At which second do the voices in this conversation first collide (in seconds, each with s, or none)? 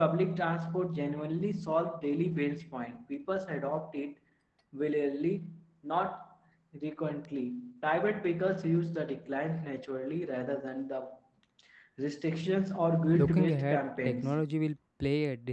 12.9 s